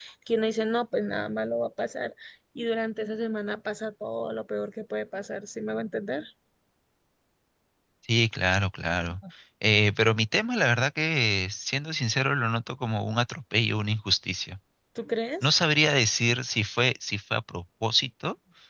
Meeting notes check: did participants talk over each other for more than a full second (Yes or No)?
No